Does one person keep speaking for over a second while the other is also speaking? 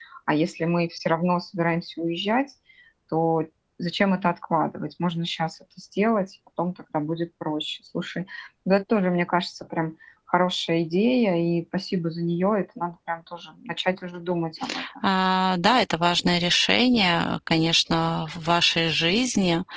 No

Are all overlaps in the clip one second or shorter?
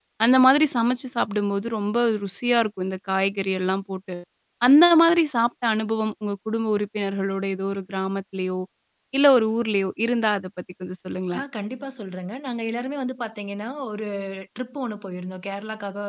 Yes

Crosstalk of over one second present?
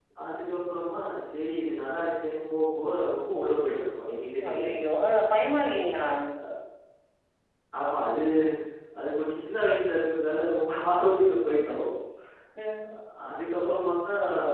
No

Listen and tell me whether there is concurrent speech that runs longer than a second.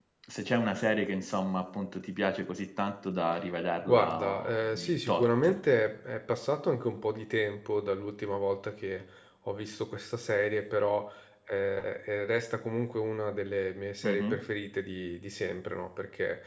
Yes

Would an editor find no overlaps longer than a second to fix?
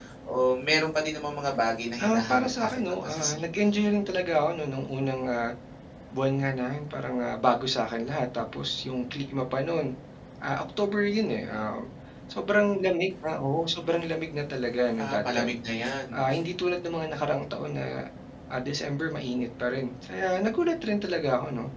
No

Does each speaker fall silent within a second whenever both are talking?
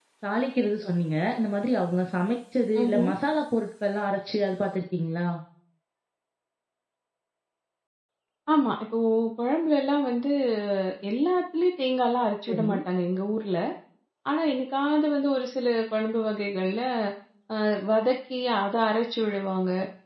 Yes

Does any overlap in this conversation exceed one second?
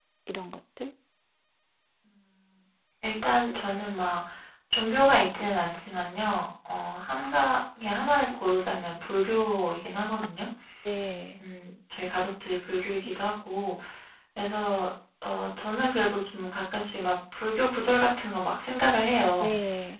No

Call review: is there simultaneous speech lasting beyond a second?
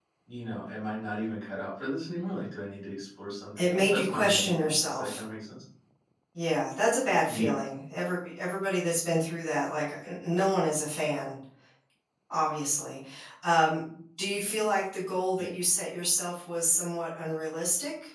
Yes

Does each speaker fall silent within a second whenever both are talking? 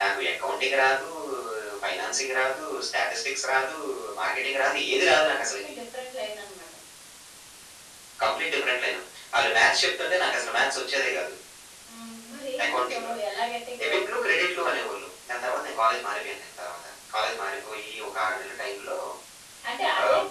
Yes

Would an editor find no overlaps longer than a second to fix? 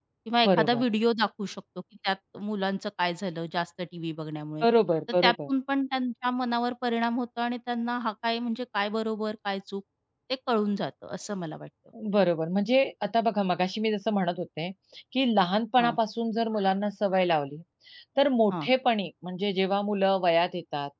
Yes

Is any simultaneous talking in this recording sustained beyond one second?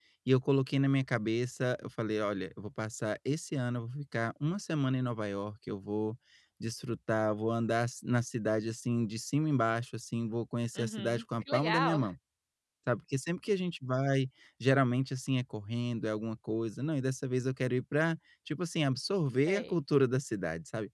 Yes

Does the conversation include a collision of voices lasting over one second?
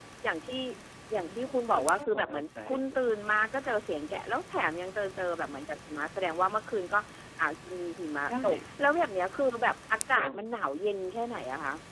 Yes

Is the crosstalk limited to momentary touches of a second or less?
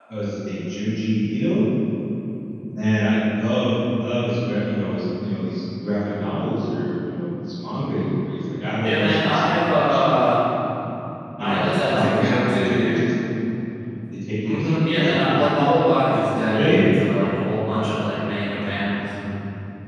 No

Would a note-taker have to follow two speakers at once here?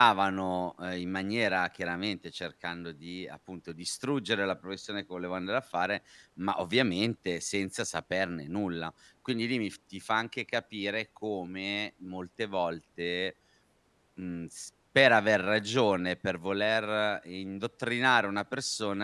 No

